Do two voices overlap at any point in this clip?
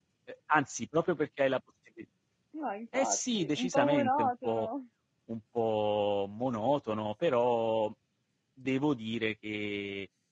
Yes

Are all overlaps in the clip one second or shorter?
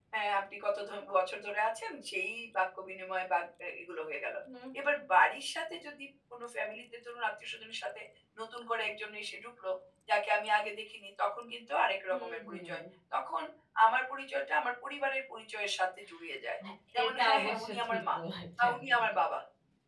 No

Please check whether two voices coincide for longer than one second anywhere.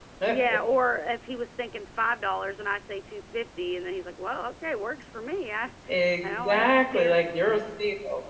Yes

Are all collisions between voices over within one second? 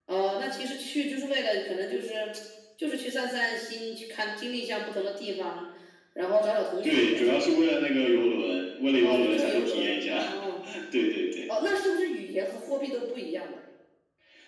No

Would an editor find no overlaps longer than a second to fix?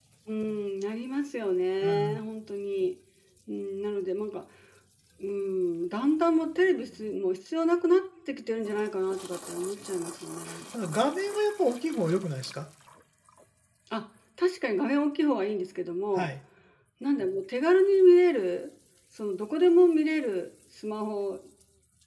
Yes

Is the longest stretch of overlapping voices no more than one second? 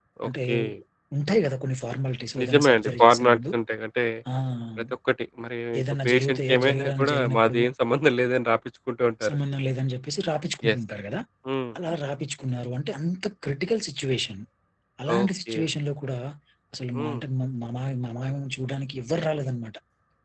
No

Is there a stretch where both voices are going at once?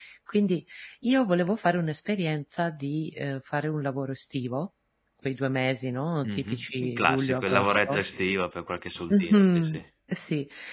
Yes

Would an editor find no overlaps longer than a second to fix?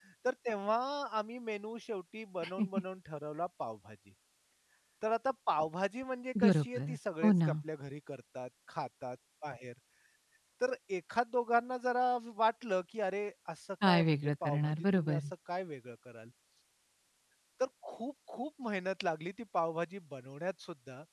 No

